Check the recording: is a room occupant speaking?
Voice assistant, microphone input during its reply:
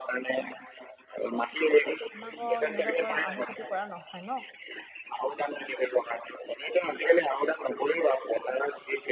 Yes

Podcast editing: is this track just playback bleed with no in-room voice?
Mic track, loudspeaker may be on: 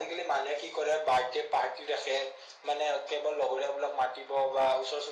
Yes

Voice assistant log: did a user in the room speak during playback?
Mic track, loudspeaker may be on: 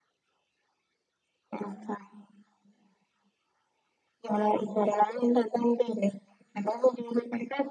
No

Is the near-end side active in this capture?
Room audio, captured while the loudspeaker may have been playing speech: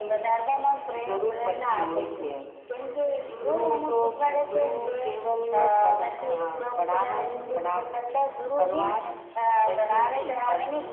Yes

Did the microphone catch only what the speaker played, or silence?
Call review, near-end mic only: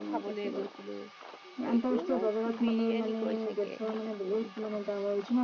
No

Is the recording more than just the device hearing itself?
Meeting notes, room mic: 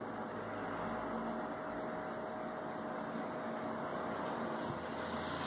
No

